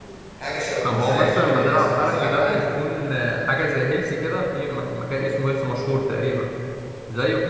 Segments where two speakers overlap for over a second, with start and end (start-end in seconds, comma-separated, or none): 0.8-2.6